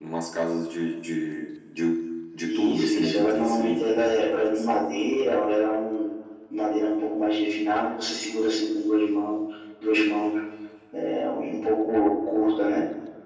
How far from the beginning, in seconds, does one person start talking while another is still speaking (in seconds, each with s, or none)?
2.4 s